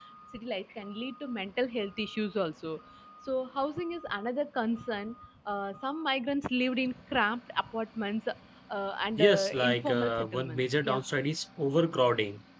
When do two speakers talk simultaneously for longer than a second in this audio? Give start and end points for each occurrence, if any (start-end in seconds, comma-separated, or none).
9.2-11.0